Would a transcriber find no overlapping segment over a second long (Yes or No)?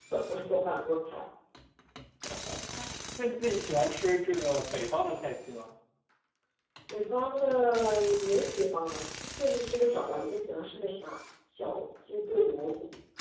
Yes